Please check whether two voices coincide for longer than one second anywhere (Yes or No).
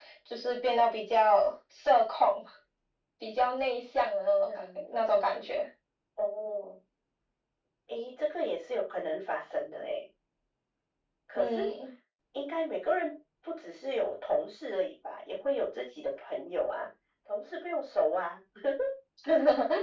No